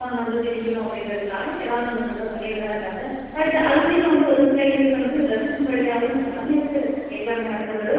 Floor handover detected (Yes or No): Yes